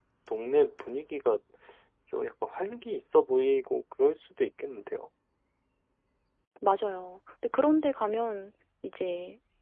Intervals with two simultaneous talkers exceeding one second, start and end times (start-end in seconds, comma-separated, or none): none